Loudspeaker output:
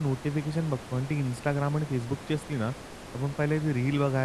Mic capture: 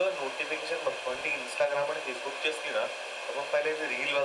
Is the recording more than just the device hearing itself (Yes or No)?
No